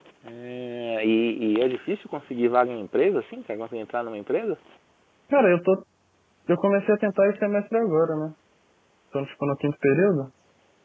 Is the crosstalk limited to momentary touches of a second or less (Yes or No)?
Yes